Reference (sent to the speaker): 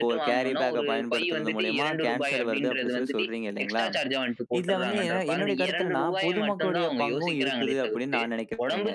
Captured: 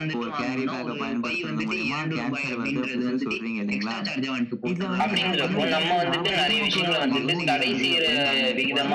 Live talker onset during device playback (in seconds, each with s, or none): 5.0 s